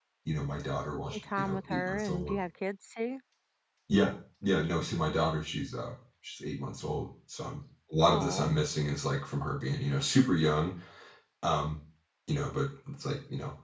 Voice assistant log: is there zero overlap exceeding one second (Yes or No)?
No